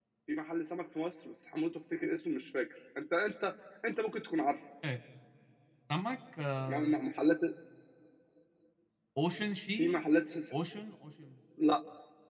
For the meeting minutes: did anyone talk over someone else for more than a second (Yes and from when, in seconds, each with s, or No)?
No